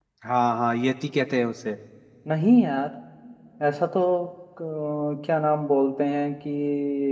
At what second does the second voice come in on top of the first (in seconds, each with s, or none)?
none